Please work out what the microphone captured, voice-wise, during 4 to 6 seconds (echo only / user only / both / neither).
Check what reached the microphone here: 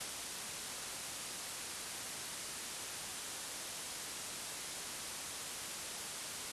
neither